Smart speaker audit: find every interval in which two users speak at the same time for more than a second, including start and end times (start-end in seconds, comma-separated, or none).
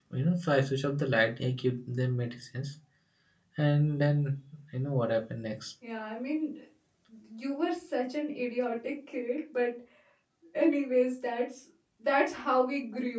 none